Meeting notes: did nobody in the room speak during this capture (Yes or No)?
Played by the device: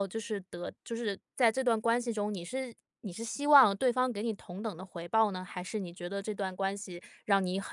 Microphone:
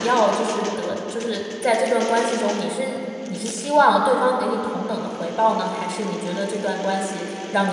Yes